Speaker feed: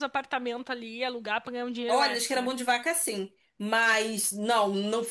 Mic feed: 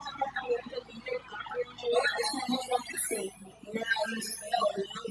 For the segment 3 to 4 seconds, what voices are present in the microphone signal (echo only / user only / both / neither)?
echo only